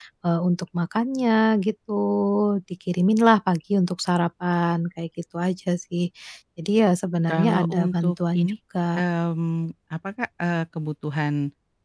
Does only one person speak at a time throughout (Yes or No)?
No